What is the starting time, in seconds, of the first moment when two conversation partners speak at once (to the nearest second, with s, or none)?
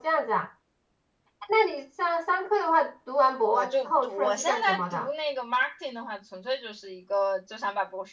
4 s